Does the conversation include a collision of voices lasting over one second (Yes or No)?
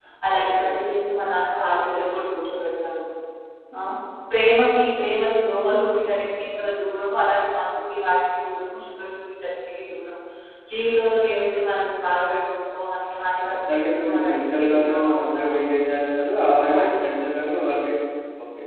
Yes